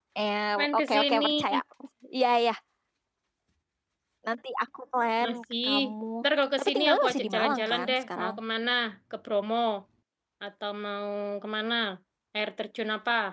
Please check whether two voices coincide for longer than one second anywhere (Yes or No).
Yes